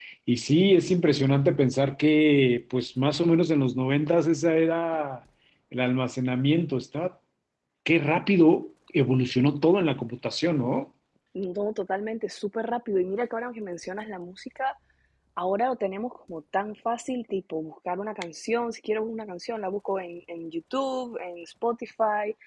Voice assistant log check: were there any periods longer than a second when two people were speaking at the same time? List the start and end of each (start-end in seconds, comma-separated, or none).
none